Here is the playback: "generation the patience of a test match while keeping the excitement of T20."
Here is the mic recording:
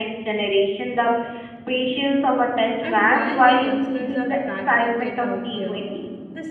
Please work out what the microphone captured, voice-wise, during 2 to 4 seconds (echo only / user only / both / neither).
both